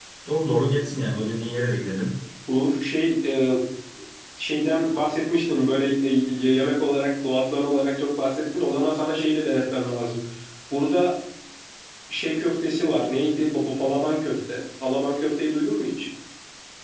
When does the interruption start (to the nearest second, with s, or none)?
none